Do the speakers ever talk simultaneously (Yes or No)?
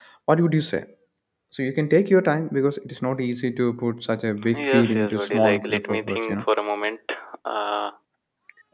Yes